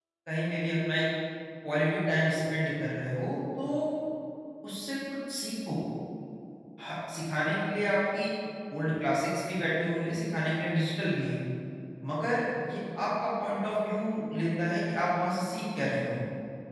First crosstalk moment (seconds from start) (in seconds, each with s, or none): none